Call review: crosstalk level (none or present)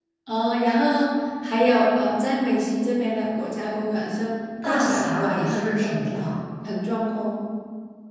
present